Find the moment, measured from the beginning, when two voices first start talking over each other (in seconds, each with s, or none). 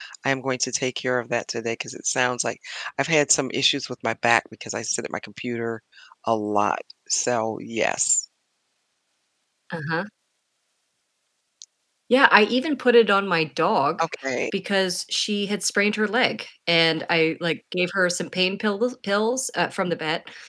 none